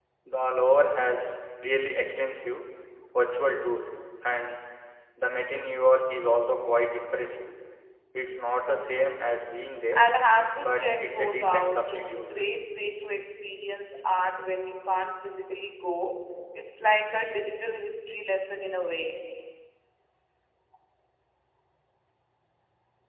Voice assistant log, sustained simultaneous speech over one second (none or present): present